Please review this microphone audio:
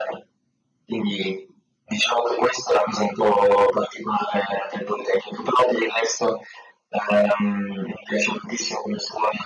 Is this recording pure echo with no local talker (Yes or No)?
Yes